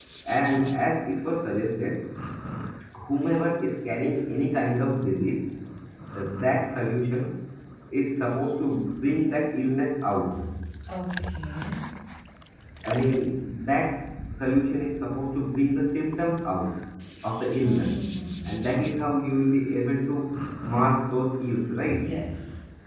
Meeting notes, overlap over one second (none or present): none